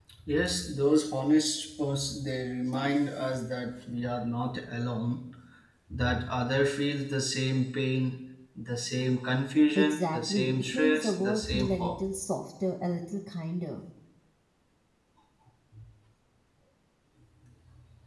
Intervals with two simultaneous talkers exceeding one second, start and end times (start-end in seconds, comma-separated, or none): 9.8-12.0